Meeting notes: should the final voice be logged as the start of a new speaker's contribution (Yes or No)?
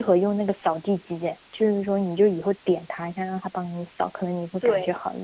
Yes